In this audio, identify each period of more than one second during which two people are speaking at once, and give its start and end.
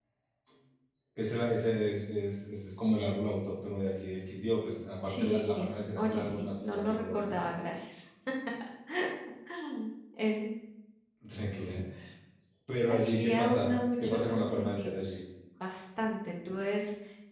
5.1-7.4, 12.9-15.2

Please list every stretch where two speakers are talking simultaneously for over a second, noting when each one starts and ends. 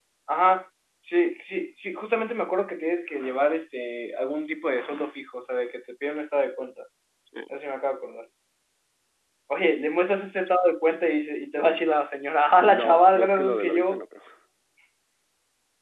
12.6-14.0

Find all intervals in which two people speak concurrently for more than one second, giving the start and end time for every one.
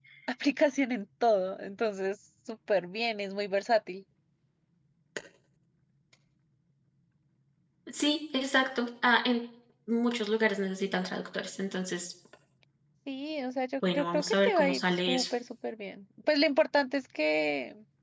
13.9-15.2

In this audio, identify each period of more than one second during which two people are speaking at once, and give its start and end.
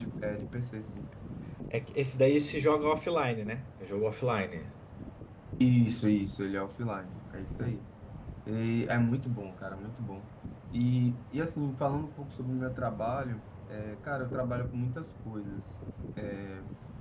none

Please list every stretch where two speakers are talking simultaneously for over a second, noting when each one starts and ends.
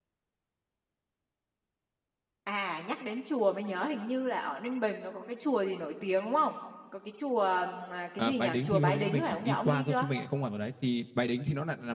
8.2-10.1

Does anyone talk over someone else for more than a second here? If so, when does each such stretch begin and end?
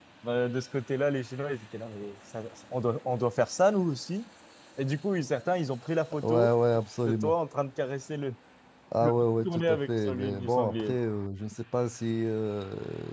9.0-10.9

